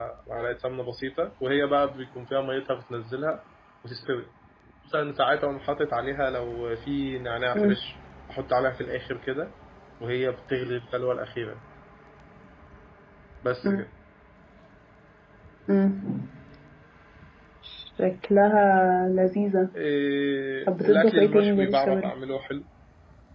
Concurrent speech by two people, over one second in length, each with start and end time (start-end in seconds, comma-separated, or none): 20.7-22.1